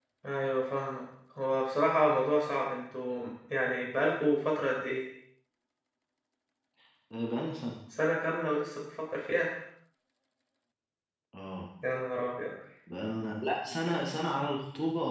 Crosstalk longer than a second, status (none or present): none